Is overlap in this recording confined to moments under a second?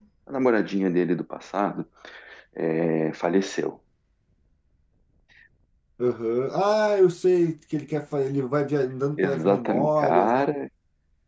No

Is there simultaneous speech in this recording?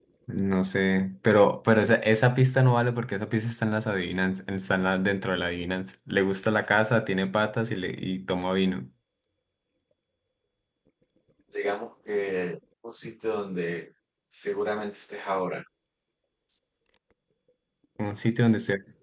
No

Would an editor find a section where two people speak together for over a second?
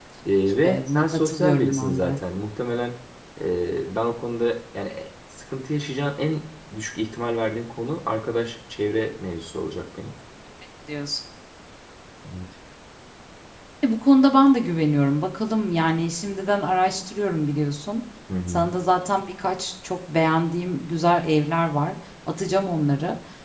Yes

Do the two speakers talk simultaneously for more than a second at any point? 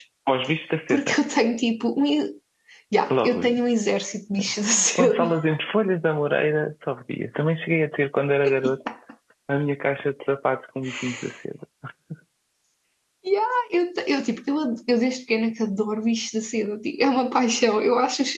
No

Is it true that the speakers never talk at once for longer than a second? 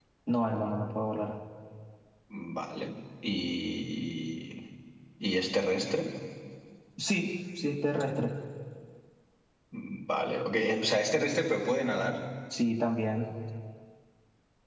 Yes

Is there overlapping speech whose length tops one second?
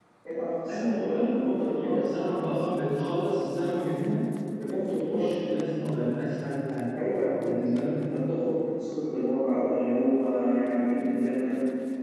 Yes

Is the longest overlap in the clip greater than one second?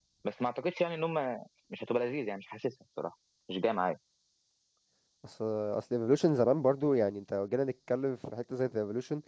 No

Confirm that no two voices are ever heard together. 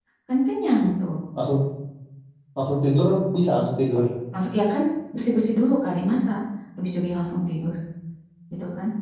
Yes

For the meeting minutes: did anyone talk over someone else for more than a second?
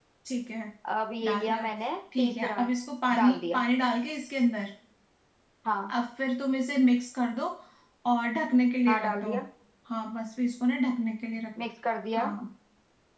No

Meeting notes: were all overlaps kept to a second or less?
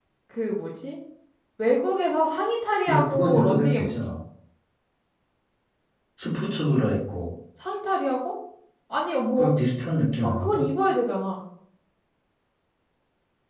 No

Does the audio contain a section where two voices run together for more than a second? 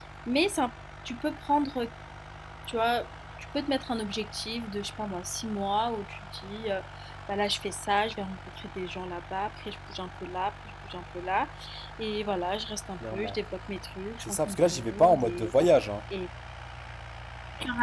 Yes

